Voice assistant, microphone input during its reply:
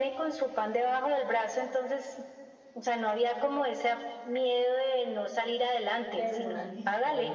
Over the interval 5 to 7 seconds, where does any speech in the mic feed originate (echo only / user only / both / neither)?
both